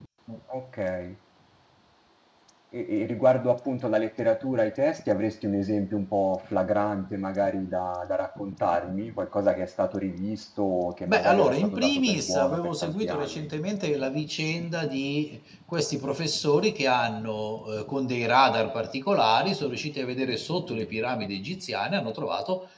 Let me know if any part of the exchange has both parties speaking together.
Yes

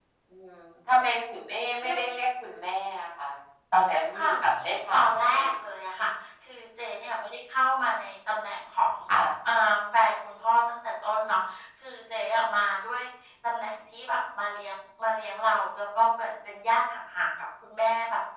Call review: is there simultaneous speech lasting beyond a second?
Yes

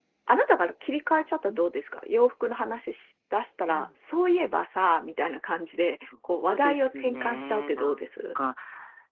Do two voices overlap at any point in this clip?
Yes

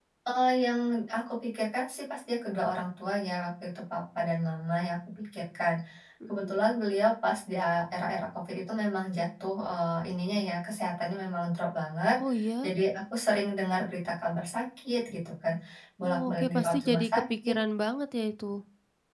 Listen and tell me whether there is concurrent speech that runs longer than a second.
Yes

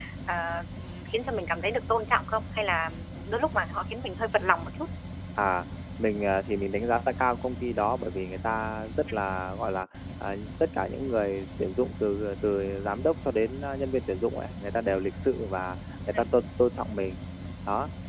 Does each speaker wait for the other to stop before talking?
Yes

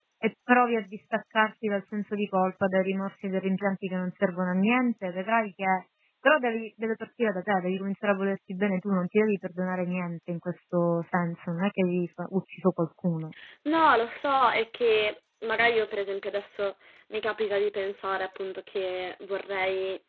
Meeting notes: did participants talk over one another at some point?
No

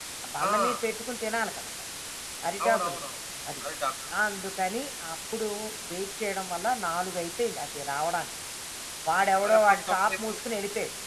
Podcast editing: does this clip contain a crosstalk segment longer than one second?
Yes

